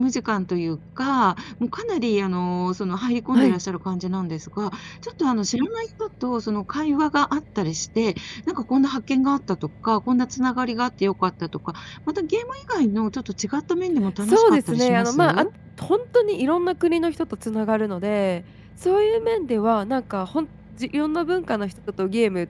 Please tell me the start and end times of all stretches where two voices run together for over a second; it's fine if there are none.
14.2-15.4

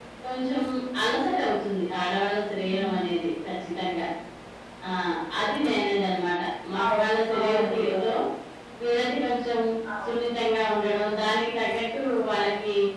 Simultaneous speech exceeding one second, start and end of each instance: 6.8-8.0

